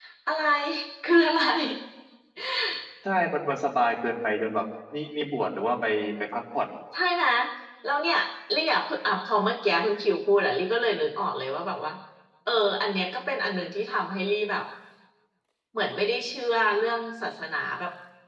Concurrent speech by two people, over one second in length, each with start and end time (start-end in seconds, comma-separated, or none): none